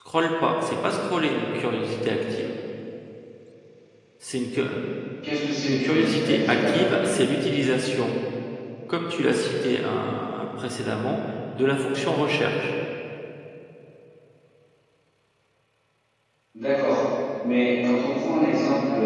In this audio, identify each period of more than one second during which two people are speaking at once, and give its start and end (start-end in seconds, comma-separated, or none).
5.7-6.9